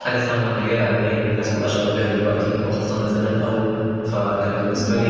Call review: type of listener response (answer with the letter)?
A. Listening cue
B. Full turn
A